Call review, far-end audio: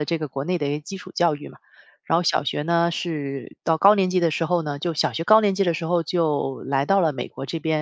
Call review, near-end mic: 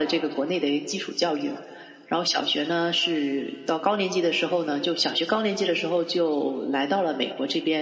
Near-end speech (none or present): none